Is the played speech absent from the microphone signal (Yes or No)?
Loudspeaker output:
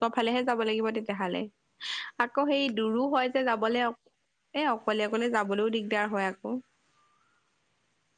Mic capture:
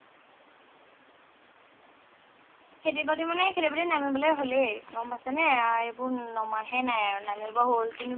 Yes